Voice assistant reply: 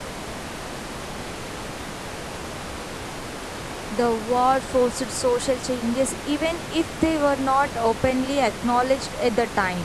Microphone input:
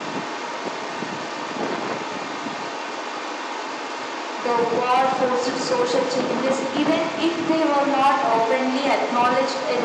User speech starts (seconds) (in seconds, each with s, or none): none